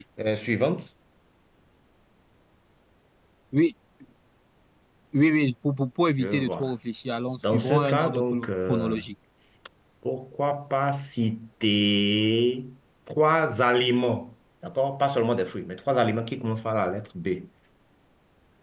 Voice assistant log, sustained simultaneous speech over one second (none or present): present